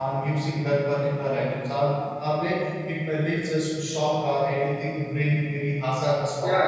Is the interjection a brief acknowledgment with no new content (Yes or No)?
No